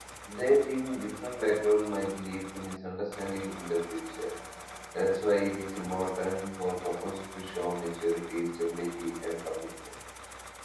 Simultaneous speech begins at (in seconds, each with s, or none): none